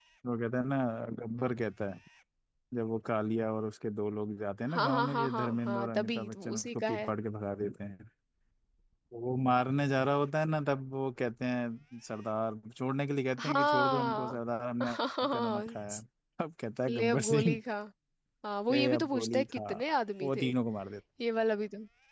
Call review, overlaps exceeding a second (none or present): present